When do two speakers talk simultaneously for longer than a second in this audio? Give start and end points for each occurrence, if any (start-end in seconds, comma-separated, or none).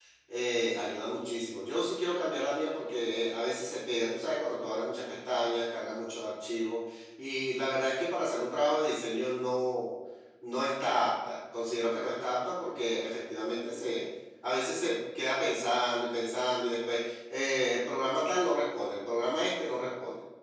none